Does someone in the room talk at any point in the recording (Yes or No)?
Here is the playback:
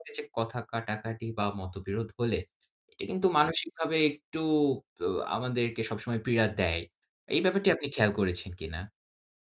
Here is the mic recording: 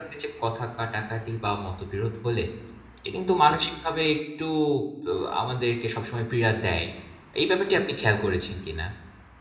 No